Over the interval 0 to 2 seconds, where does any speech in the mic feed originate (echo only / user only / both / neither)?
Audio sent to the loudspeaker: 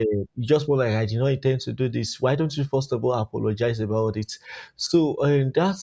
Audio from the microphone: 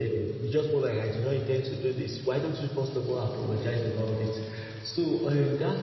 echo only